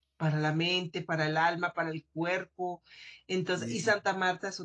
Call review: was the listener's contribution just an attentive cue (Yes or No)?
Yes